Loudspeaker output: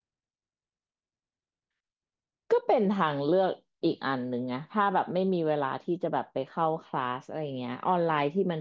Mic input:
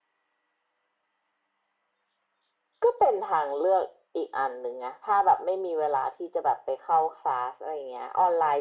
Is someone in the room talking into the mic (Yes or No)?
No